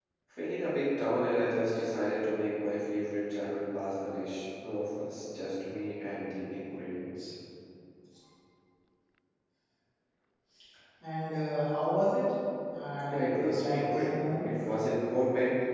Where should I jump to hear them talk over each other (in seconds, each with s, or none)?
13.1 s